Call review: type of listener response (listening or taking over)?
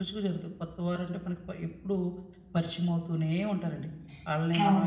listening